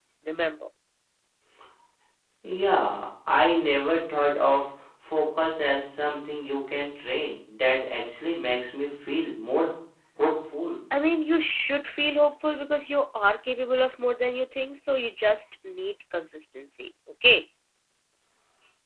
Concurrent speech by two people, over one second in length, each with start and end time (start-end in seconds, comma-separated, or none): none